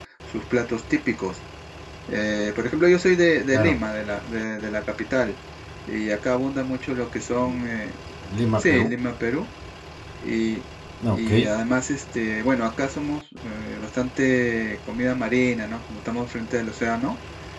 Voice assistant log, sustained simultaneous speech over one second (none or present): none